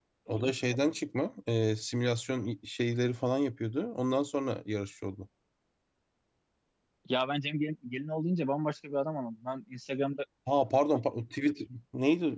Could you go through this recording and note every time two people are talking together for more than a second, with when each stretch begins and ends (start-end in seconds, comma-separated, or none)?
none